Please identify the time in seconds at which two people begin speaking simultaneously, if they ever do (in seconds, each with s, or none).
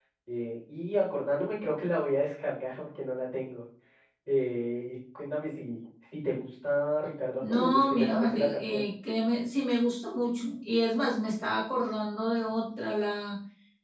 7.4 s